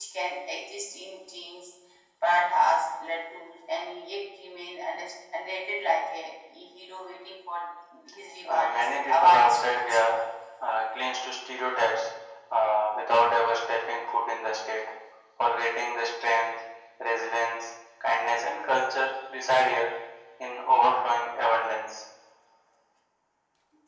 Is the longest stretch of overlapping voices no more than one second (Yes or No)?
No